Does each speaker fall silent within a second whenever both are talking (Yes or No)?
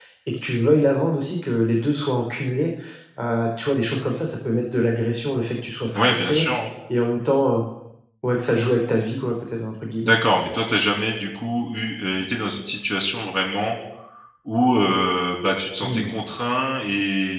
Yes